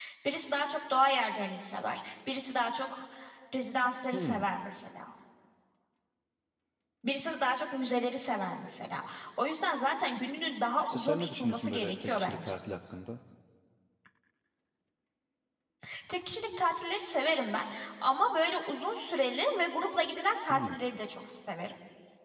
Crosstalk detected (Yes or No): Yes